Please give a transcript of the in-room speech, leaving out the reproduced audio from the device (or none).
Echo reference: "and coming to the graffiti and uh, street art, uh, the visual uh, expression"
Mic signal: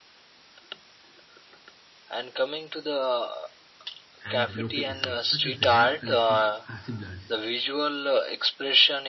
and local issues such as the rap collective Casiblars.